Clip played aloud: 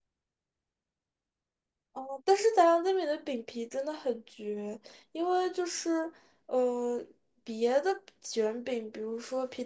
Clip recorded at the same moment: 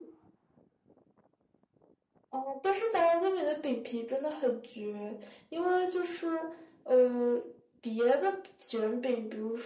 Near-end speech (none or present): none